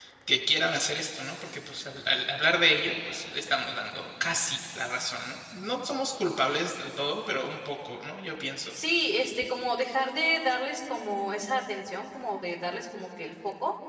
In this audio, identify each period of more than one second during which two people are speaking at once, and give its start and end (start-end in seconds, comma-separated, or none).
none